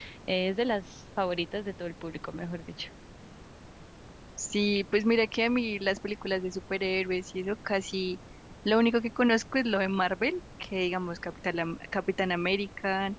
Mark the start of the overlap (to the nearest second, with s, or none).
none